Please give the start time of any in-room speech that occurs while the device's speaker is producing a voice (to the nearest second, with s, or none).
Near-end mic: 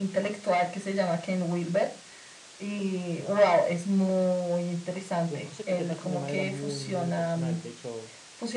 5 s